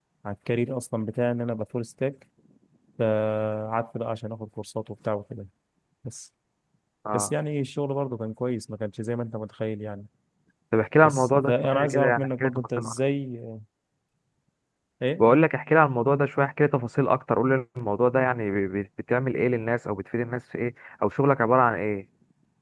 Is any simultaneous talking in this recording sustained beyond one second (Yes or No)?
Yes